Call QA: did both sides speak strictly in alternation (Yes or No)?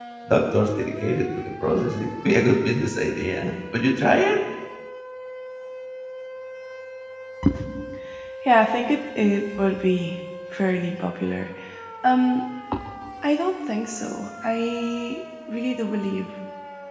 Yes